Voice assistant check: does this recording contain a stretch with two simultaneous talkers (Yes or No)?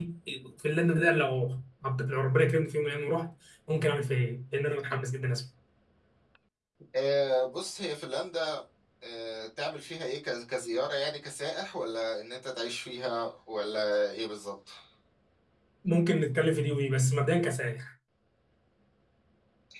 No